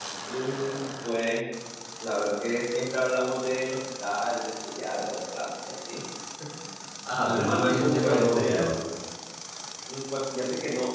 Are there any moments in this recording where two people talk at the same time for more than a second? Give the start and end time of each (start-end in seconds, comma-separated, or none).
7.1-8.7